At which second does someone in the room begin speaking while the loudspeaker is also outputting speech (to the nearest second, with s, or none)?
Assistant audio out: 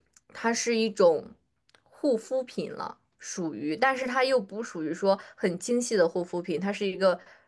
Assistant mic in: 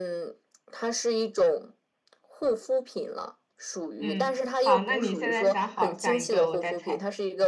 4 s